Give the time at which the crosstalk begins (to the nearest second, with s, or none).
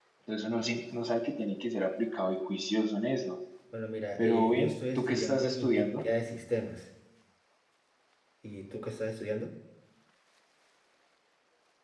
4 s